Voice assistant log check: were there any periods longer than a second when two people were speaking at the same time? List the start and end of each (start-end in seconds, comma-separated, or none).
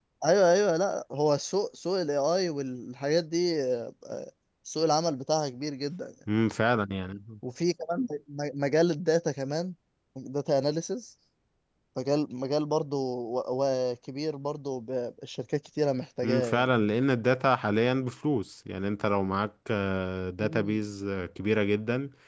none